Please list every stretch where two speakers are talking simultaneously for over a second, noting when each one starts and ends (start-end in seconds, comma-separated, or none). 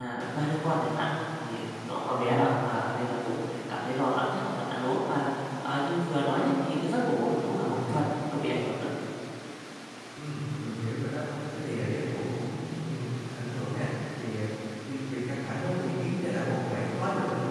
none